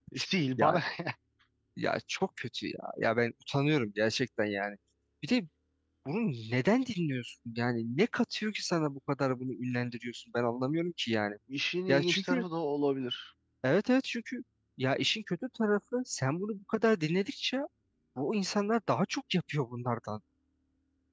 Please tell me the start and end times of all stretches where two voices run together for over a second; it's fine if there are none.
none

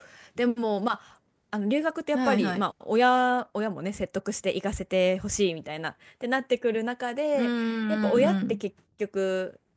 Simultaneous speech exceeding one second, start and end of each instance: 7.4-8.6

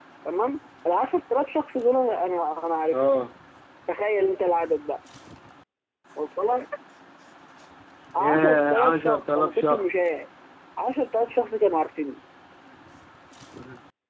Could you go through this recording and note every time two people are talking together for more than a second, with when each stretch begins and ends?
8.2-9.9

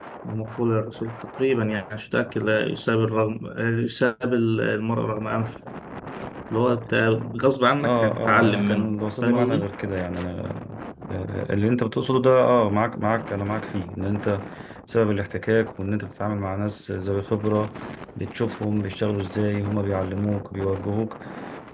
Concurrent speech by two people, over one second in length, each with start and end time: 7.8-9.7

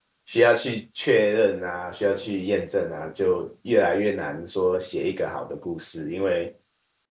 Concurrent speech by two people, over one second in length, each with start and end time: none

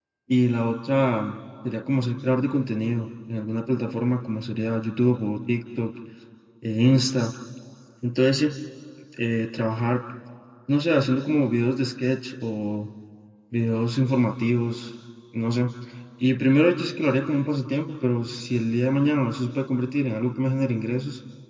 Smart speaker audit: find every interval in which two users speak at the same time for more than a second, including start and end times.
none

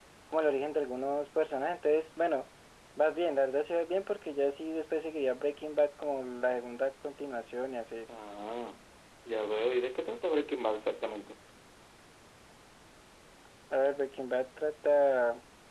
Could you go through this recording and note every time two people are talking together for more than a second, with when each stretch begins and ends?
none

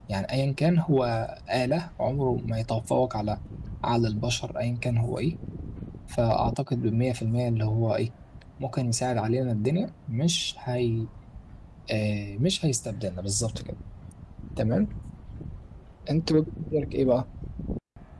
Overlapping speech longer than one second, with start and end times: none

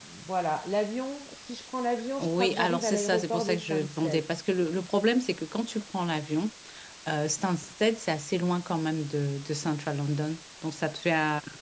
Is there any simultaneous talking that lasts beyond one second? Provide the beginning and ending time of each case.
2.2-4.2

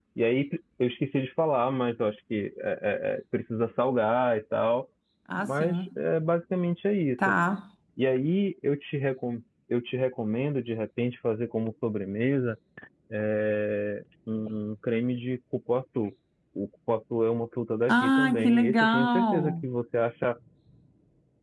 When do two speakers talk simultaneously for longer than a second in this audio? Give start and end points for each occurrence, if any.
17.9-19.6

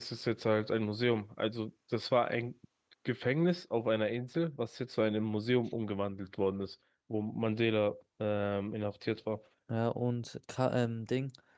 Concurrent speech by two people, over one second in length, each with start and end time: none

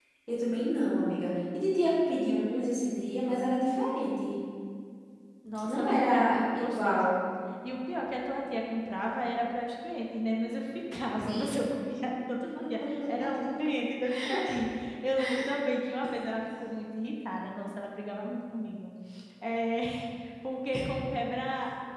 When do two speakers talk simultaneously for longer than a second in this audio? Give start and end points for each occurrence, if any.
5.6-7.1

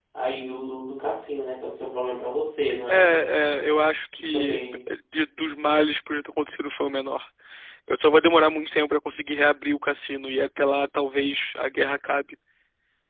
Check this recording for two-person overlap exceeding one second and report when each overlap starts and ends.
none

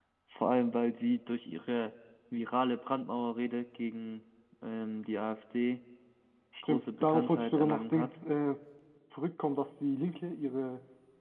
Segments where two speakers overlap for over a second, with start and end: 6.6-8.1

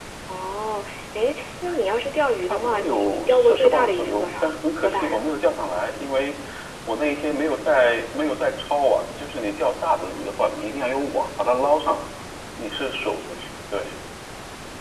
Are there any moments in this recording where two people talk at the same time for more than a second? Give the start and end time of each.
2.5-4.4

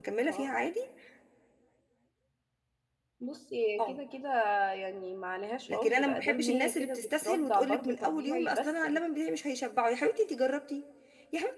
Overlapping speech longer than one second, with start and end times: 5.7-9.0

